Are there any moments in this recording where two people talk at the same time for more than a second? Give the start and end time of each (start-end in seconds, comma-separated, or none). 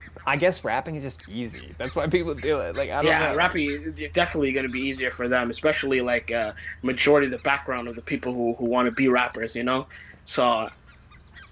none